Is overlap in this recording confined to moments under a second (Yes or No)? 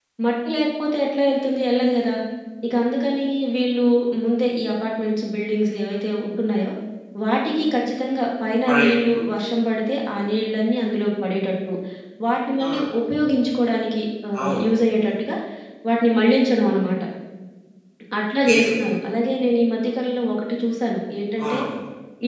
Yes